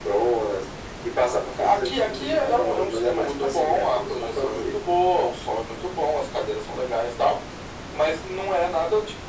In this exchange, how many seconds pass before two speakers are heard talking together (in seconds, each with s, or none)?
1.6 s